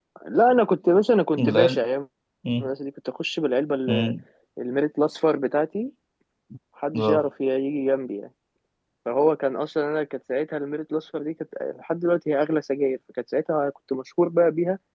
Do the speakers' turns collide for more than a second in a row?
No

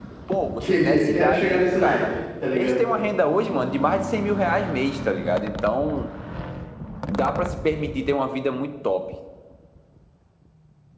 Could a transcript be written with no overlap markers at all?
No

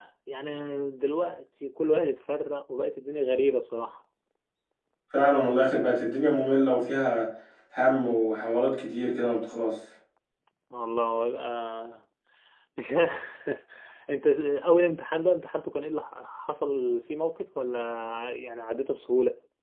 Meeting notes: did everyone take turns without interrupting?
Yes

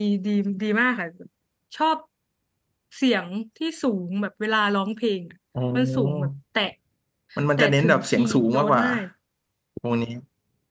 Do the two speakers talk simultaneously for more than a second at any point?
Yes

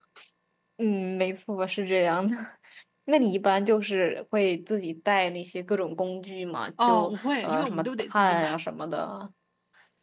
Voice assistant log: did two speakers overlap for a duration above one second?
Yes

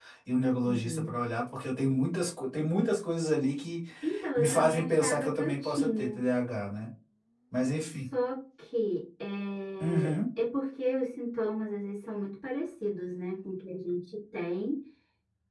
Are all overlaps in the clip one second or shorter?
No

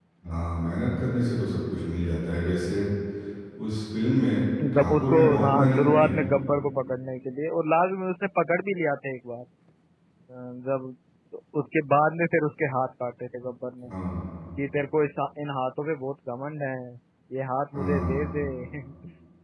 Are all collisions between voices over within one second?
No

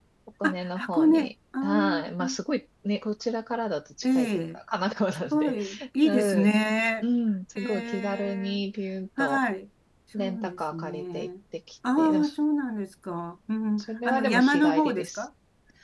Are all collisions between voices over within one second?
No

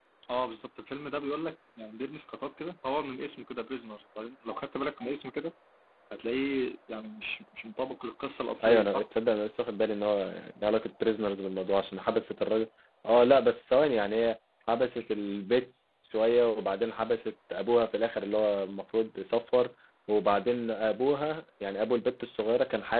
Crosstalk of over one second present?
No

